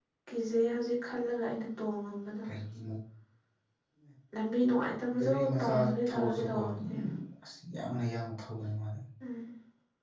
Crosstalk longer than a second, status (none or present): present